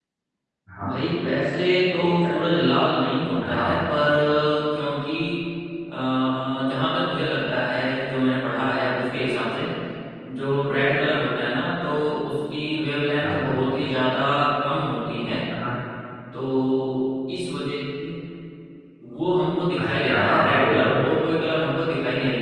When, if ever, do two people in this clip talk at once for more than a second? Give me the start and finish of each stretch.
19.8-21.0

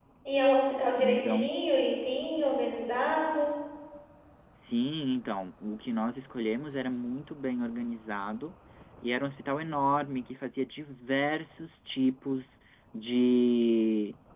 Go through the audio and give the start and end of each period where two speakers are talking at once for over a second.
none

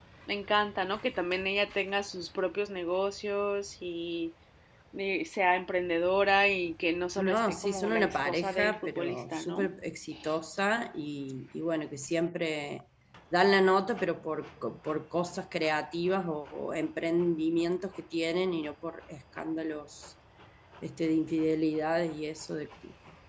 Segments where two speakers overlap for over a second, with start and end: 7.2-9.7

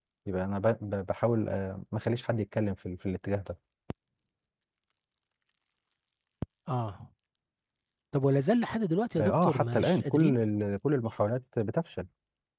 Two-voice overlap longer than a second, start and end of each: 9.2-10.4

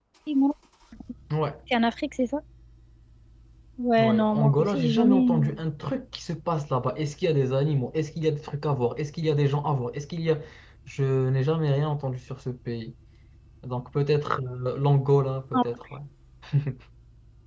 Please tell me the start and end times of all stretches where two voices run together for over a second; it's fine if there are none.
4.0-5.4

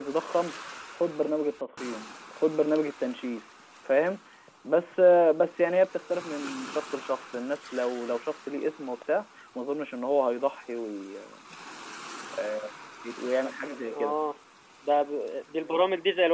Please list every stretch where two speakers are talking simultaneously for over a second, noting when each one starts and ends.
none

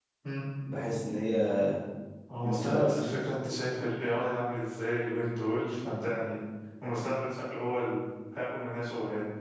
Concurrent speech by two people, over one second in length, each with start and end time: none

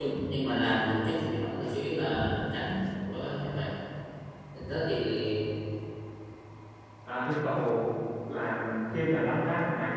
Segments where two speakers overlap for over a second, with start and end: none

